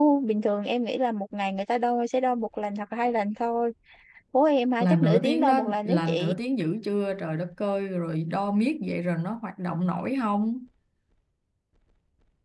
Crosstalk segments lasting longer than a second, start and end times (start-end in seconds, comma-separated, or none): 4.8-6.3